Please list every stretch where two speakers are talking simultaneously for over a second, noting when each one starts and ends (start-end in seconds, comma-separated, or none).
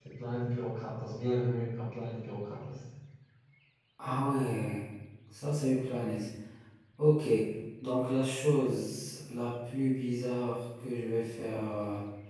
none